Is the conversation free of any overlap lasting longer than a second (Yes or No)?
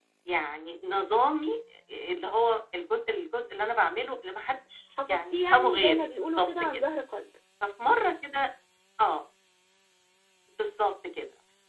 No